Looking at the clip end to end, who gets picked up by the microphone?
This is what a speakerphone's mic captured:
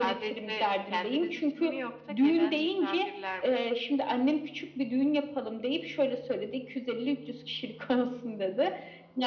echo only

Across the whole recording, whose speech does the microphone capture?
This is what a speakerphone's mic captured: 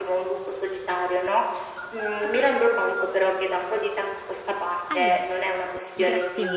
both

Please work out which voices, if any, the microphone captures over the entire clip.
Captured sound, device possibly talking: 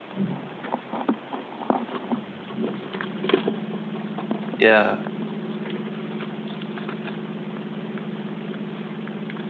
user only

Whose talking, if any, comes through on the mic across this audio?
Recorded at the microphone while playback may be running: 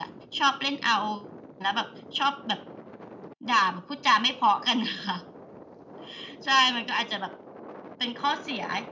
echo only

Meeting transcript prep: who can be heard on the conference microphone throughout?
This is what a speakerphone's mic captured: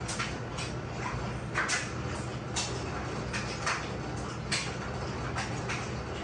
neither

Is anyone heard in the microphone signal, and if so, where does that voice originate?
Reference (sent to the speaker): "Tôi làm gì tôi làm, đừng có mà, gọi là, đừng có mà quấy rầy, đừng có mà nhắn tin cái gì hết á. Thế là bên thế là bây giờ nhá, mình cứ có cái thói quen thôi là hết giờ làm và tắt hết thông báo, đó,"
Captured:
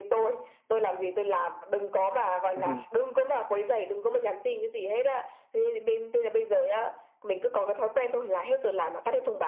both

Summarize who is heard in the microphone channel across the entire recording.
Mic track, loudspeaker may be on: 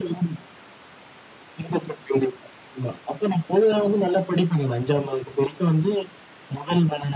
echo only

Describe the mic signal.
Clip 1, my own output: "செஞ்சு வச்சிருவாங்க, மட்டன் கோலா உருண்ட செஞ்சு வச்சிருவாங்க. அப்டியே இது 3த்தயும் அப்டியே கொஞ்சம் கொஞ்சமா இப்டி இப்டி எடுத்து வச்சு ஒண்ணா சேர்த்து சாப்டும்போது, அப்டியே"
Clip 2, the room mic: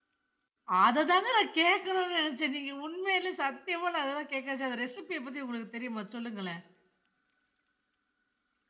user only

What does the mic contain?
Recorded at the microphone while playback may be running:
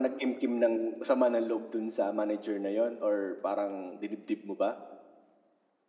echo only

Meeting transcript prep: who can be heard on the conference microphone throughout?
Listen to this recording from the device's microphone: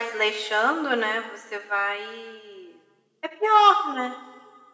echo only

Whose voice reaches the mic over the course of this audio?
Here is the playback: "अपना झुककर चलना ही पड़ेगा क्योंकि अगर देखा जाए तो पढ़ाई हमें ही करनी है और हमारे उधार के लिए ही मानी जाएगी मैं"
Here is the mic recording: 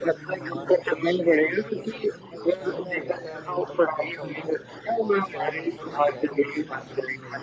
both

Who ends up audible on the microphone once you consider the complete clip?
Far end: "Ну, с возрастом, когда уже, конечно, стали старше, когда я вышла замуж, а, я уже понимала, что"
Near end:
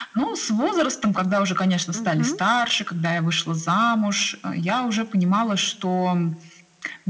both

